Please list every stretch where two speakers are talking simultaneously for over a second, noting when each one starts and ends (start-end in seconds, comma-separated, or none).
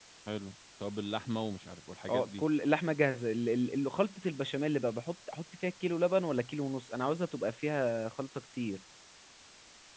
none